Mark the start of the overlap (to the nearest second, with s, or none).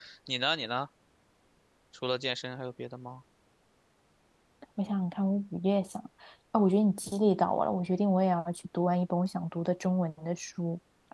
none